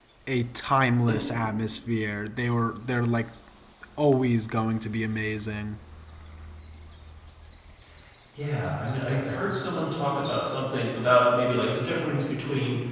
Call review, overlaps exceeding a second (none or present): none